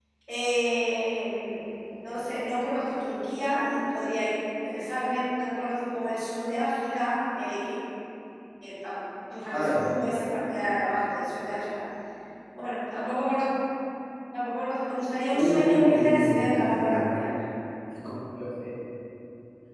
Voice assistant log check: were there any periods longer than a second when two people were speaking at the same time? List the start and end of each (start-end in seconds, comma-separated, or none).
15.3-17.1